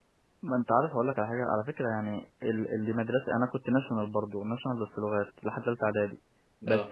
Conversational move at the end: listening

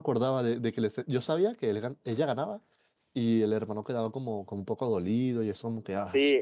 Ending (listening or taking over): taking over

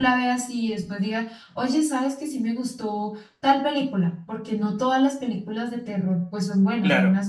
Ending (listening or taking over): taking over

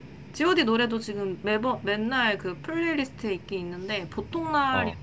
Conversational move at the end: listening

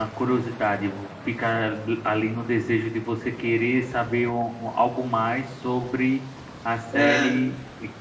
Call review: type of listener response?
listening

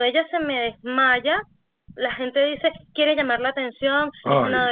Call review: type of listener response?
listening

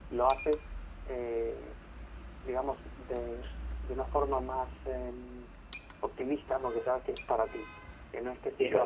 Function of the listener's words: listening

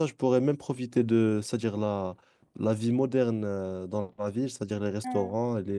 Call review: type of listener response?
listening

